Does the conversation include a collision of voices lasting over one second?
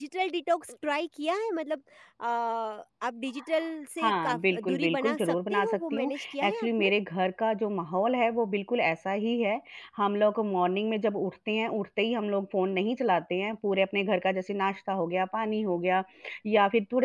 Yes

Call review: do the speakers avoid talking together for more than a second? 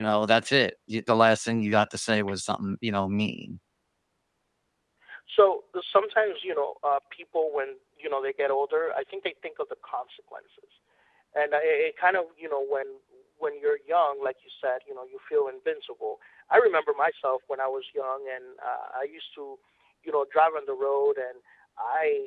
Yes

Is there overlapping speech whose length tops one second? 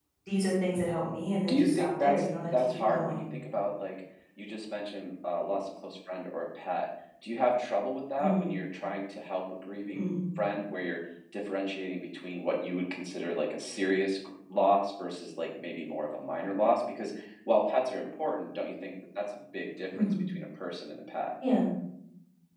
Yes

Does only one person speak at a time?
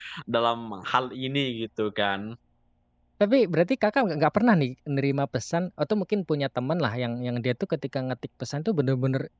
Yes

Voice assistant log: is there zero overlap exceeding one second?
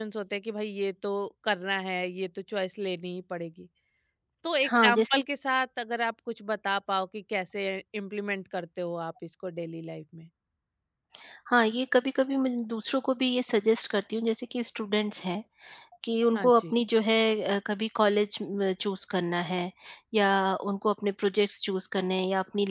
Yes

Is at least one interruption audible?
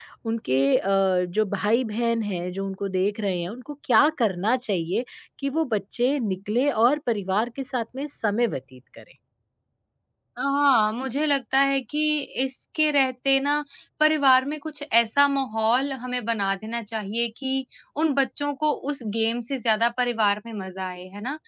No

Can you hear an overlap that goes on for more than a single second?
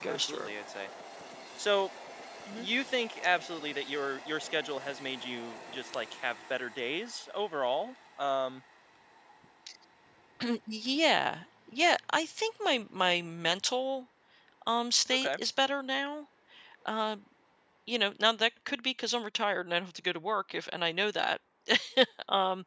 No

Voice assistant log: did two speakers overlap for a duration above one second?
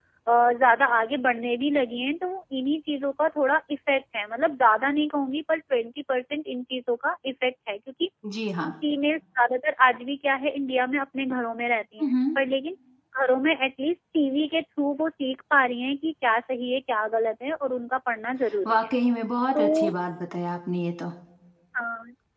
No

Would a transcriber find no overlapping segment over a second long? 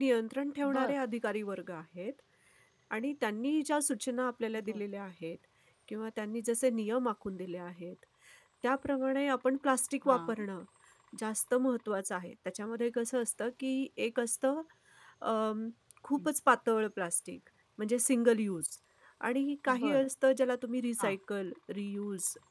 Yes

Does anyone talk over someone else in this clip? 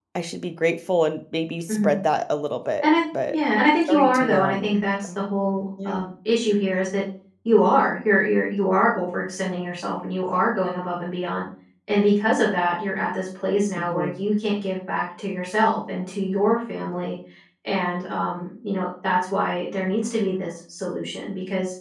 Yes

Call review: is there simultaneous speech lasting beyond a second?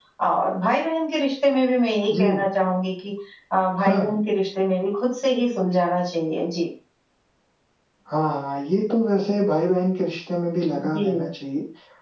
No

